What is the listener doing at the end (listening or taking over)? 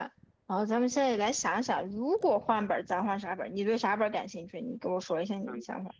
taking over